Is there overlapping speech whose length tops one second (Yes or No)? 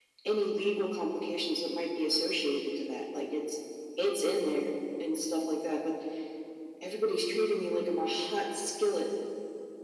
No